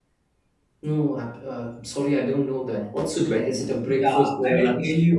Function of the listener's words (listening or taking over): taking over